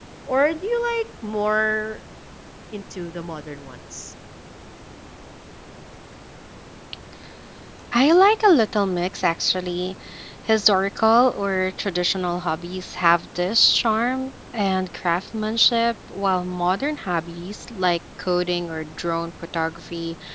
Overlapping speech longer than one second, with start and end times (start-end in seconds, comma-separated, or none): none